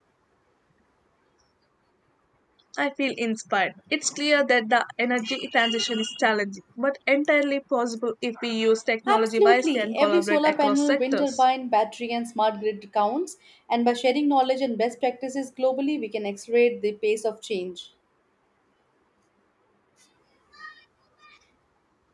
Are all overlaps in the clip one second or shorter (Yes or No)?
No